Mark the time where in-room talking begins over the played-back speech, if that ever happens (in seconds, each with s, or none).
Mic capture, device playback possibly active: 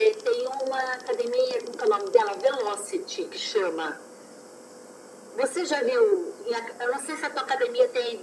none